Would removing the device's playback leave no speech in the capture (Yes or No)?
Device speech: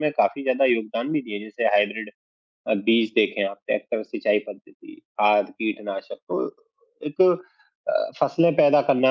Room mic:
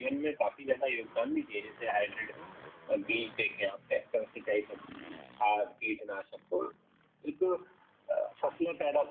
Yes